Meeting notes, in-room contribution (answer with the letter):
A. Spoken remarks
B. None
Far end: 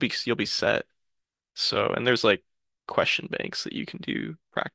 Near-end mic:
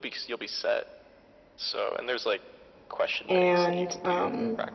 A